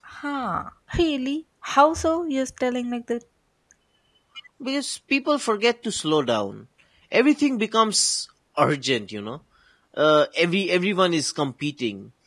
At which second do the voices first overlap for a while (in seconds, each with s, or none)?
none